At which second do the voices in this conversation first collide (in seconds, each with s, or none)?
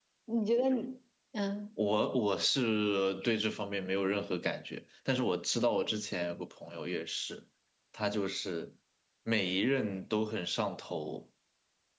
none